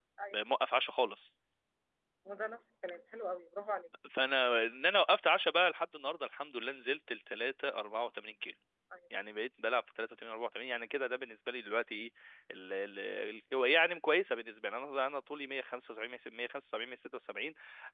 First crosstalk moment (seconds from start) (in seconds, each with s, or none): none